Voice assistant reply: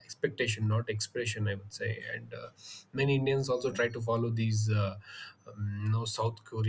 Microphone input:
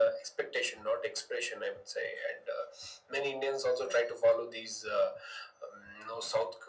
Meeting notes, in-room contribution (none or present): none